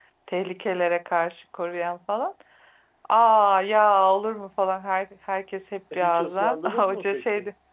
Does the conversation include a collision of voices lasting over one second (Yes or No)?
Yes